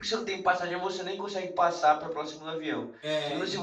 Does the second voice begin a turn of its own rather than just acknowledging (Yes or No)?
No